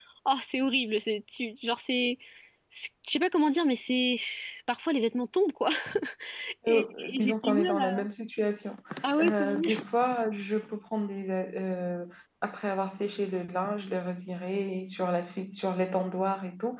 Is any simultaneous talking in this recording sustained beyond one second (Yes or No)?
Yes